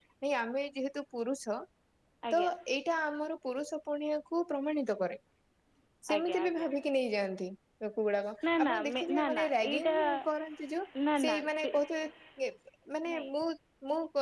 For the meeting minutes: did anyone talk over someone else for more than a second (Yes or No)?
Yes